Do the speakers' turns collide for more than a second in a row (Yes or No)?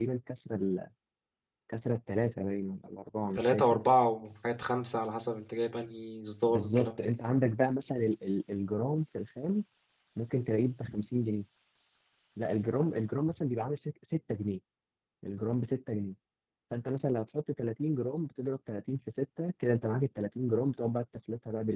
No